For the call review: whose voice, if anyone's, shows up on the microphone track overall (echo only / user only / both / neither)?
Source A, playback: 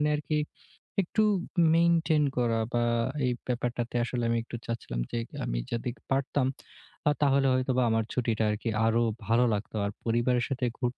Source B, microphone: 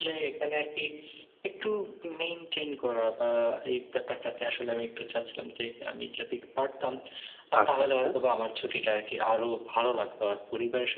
both